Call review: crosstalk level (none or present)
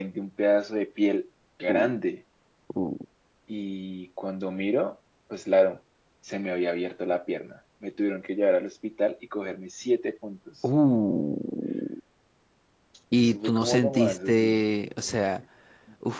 present